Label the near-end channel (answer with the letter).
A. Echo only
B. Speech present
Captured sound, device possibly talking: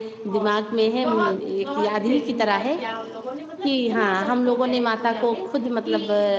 B